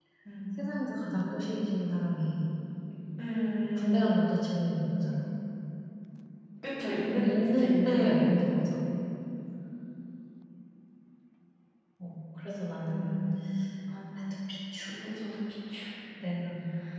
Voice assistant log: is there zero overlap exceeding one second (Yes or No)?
No